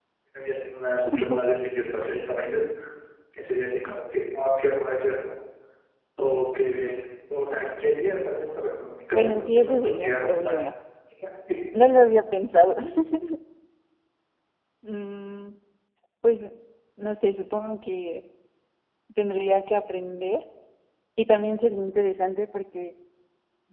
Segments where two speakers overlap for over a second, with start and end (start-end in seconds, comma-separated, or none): 9.1-10.7